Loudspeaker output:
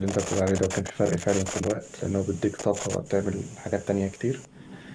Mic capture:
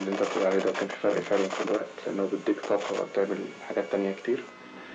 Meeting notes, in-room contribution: none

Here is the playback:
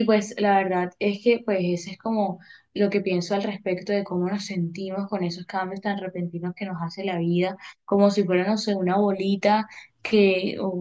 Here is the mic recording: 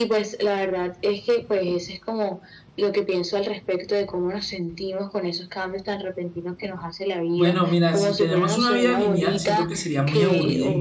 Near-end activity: present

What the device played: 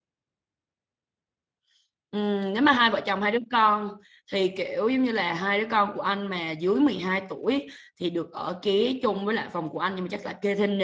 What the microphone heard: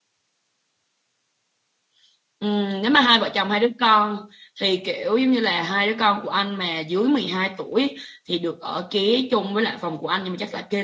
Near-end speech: none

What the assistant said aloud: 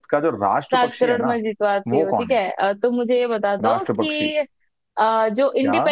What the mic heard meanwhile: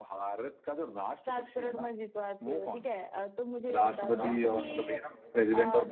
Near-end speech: present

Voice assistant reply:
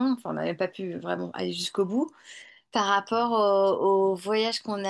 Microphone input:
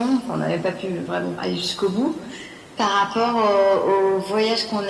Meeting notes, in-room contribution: none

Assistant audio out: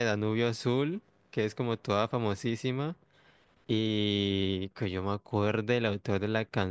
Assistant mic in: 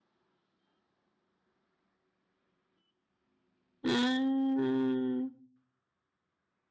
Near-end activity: present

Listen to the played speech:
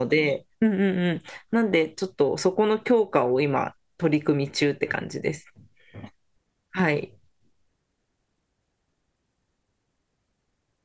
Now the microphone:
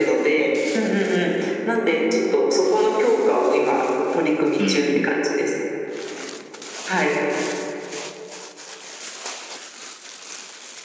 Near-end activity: present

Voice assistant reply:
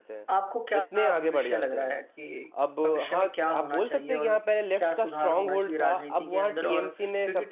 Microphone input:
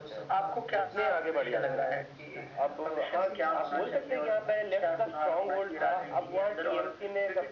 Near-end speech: present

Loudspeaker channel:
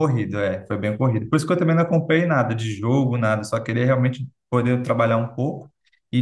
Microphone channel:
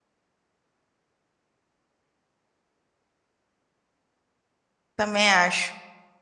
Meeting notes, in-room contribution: present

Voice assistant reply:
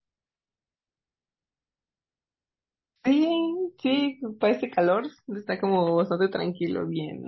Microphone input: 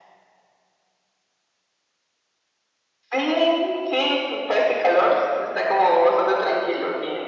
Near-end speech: none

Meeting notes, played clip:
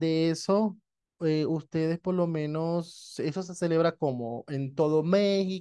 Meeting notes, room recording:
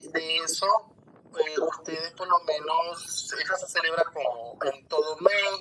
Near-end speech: none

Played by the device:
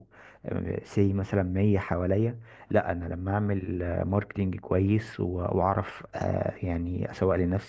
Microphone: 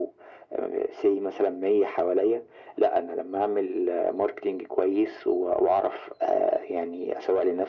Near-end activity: none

